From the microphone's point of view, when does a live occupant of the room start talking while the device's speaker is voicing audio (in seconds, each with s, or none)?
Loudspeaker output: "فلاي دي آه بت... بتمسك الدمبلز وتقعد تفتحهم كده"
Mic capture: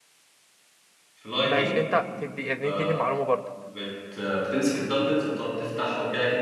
1.4 s